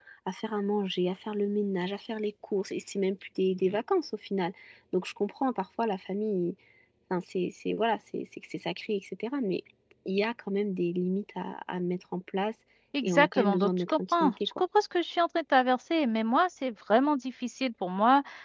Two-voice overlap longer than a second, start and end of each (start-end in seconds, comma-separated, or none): 13.0-14.6